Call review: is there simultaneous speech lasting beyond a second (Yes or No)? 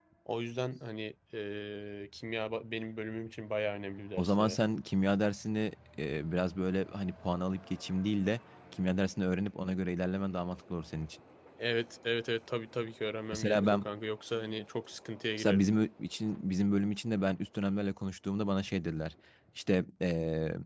No